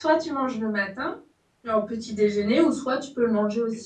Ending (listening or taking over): taking over